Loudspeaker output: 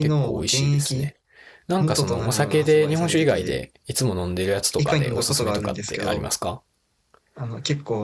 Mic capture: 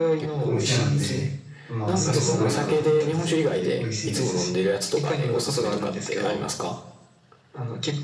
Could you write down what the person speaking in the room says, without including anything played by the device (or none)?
お店なんで、まあ、それすごいなと思ってます。美味しいですし。